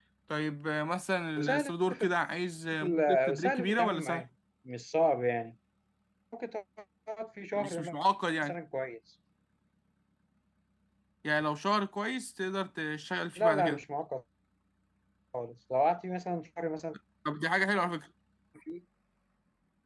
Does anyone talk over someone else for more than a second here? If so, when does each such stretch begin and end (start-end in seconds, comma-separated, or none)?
2.8-4.2